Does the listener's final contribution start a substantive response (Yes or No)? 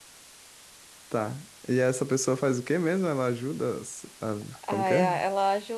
Yes